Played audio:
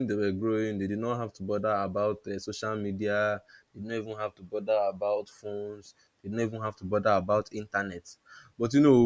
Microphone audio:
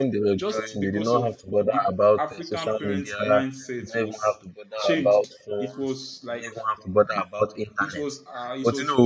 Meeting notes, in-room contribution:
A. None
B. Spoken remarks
B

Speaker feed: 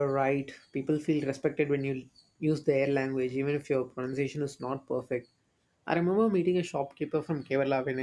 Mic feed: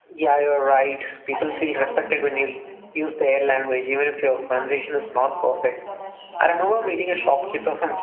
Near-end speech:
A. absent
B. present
B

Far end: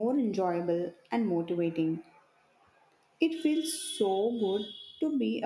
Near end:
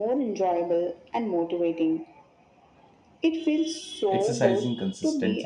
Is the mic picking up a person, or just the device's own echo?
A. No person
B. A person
B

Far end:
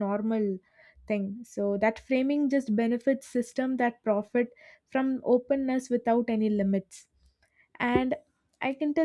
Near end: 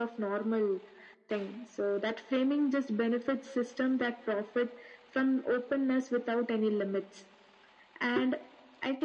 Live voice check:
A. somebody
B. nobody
B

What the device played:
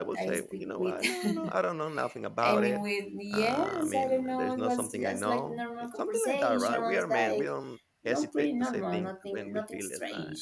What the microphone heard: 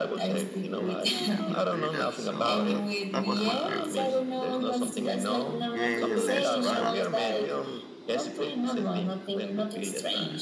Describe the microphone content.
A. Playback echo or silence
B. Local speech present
B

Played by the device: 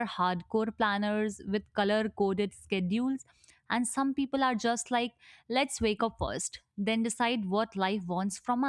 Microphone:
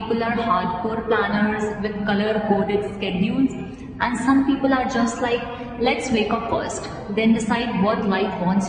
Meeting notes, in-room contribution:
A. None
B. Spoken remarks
A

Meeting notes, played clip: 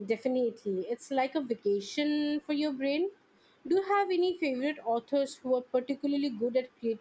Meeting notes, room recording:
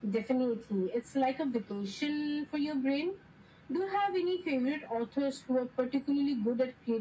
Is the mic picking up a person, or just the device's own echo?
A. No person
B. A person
A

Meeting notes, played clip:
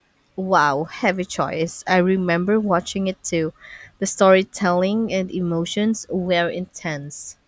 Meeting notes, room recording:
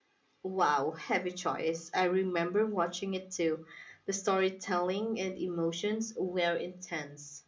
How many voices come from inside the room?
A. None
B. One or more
A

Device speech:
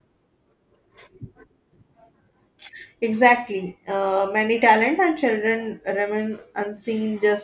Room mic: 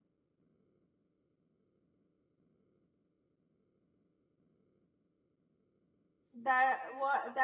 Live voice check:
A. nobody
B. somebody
B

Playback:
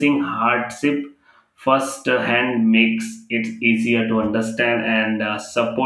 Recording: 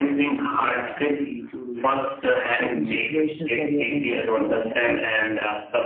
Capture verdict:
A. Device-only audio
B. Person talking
B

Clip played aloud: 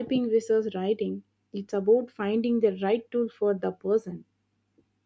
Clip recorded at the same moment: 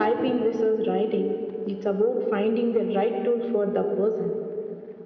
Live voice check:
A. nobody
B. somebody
A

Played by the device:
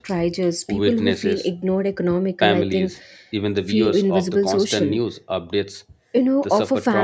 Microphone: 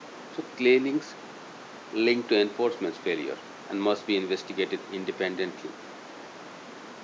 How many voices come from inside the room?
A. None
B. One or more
B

